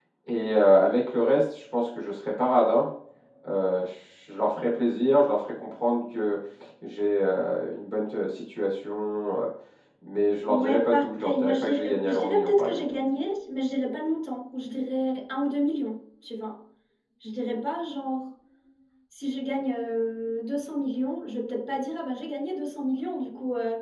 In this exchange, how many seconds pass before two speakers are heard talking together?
10.5 s

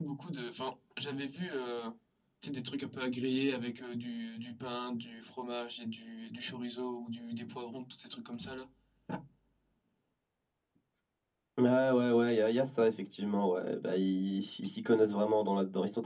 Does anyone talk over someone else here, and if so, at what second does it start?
none

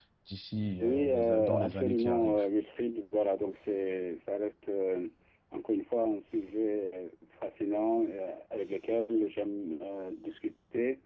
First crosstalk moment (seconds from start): 0.8 s

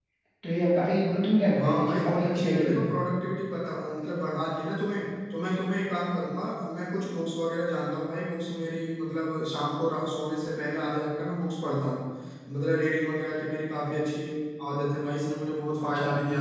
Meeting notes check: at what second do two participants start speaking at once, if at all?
1.6 s

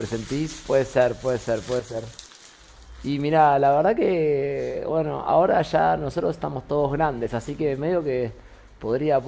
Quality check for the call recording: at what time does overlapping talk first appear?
none

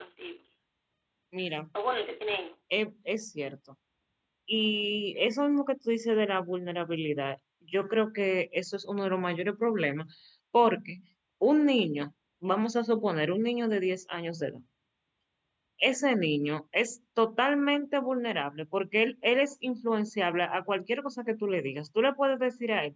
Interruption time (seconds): none

